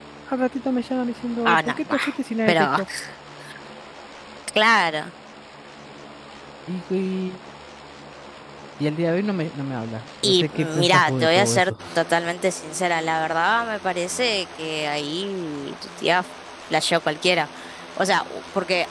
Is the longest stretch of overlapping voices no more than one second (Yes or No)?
No